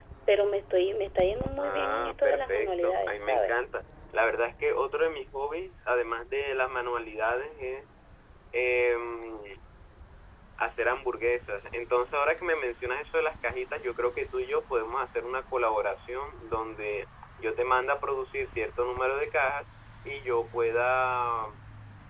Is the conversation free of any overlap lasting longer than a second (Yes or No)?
No